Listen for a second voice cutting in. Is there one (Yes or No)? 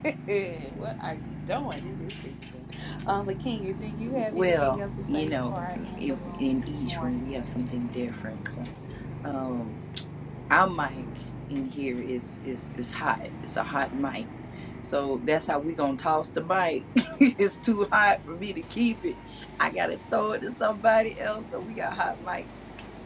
Yes